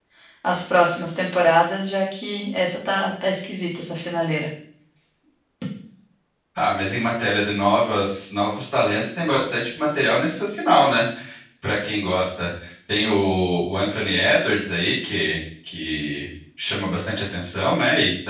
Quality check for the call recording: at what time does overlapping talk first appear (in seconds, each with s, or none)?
none